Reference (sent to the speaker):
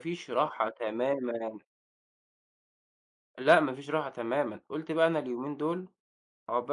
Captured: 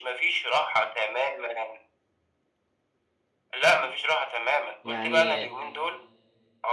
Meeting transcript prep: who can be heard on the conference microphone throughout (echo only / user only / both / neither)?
both